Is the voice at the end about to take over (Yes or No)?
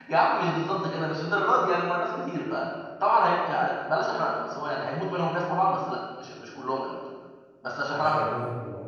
Yes